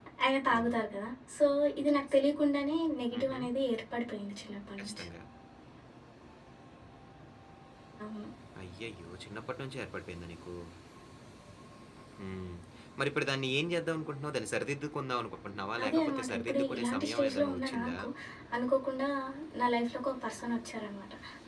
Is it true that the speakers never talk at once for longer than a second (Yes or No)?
No